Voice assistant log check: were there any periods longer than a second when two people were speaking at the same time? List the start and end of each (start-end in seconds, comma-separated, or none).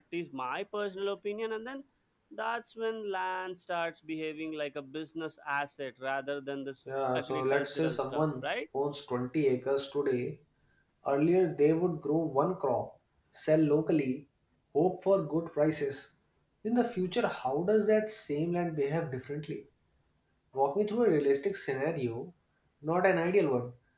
6.9-8.4